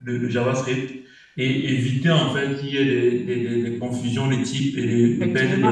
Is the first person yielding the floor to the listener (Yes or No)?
Yes